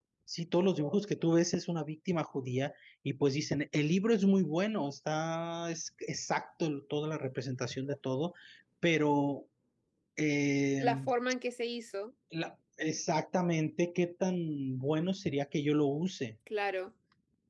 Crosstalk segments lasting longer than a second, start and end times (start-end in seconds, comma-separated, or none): none